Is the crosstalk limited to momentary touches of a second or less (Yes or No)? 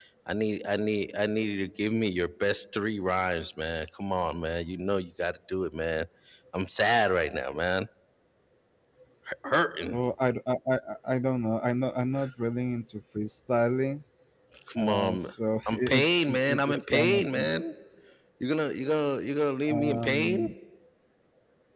No